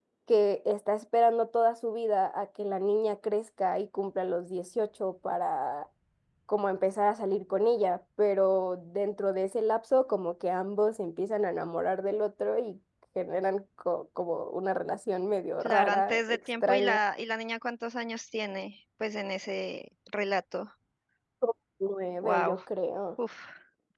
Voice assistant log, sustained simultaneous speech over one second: present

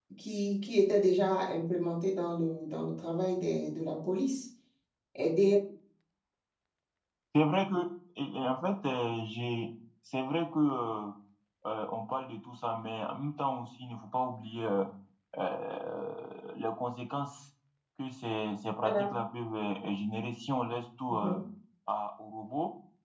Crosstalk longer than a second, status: none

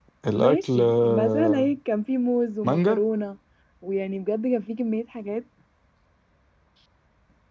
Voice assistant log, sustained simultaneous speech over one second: present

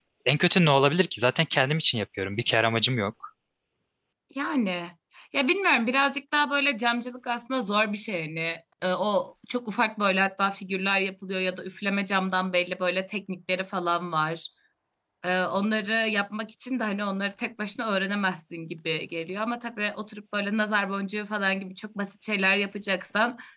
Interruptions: none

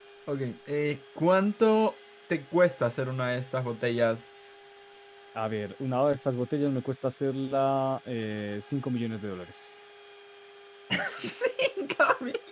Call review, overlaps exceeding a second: none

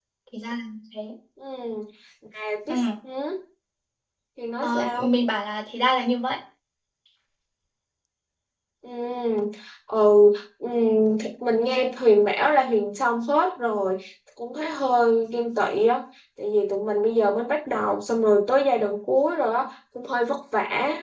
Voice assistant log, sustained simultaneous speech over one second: none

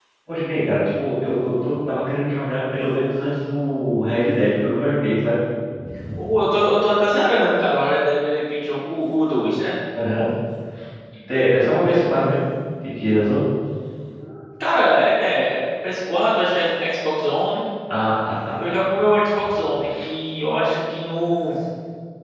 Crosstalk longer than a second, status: none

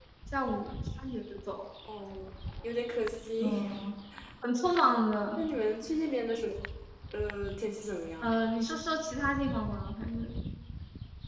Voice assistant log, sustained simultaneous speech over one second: none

